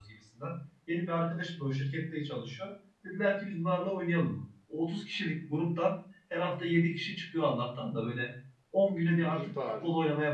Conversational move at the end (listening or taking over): listening